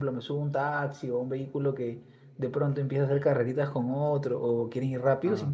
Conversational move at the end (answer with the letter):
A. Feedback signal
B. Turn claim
A